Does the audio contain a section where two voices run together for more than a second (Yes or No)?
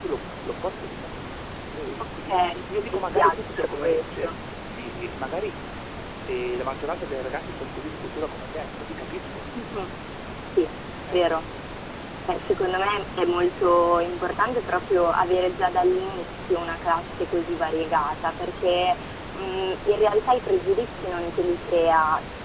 Yes